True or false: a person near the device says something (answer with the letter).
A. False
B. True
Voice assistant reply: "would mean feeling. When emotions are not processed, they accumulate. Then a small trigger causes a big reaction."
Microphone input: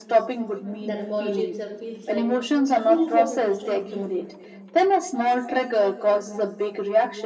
B